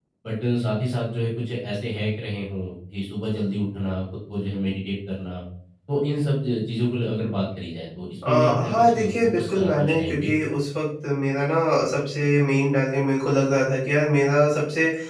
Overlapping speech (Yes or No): Yes